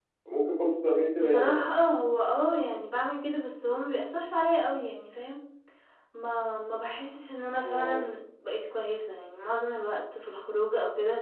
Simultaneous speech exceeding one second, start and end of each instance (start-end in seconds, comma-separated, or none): none